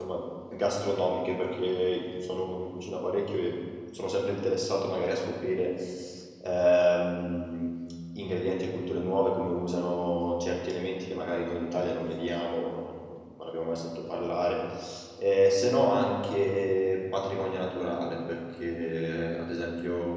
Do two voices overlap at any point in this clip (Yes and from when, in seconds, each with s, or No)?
No